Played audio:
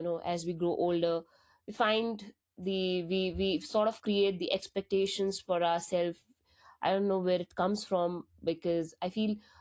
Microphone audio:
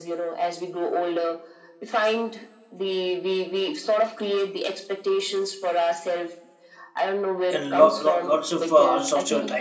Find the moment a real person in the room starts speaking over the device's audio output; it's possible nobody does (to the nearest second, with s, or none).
8 s